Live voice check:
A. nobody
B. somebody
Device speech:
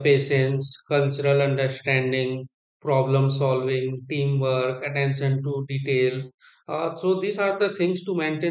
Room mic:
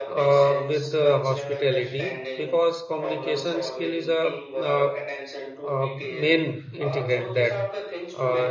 B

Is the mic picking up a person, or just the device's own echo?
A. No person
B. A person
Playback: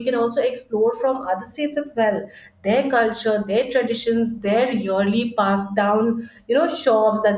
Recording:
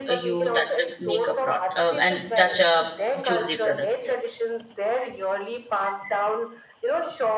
B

